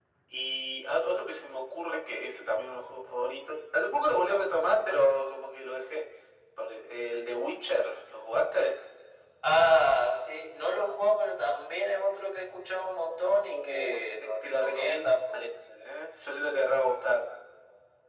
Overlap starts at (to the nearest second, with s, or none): 13 s